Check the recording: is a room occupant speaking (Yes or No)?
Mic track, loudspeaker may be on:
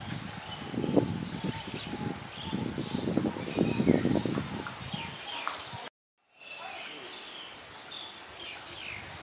No